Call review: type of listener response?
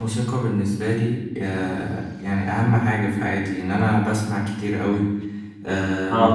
listening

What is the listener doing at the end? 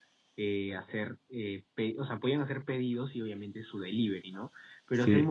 listening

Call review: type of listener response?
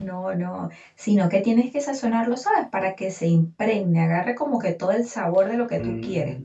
taking over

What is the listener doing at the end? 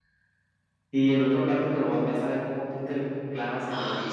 taking over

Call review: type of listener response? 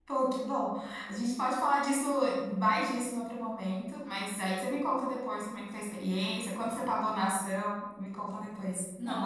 taking over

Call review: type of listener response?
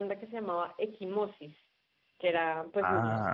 listening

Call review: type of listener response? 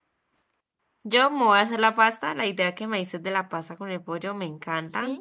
listening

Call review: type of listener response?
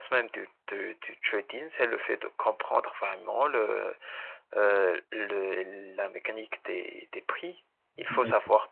listening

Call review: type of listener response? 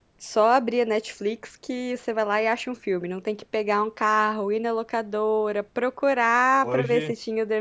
listening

